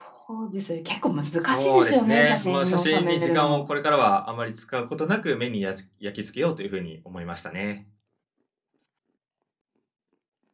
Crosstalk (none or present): present